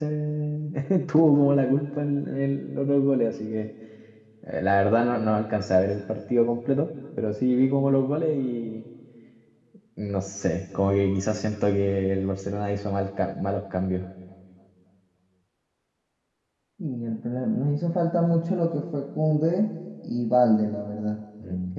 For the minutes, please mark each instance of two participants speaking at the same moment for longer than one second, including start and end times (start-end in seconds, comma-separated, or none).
none